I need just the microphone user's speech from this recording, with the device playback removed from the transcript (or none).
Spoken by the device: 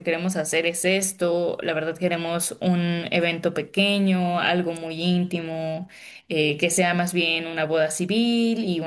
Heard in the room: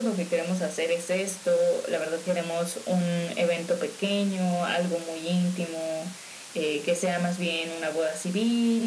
none